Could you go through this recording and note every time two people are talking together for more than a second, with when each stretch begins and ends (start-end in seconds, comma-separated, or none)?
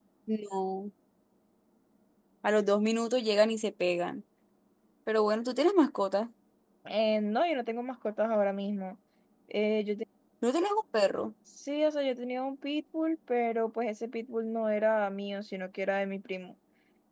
none